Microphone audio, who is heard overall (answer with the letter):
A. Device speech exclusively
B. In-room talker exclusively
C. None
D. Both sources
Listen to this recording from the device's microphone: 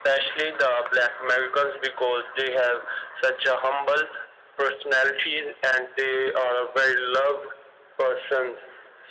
A